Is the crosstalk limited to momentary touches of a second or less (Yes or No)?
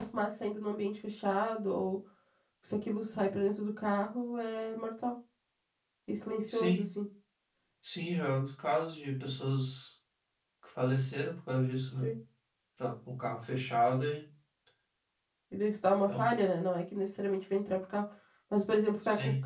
Yes